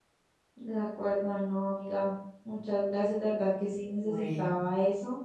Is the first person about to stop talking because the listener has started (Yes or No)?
No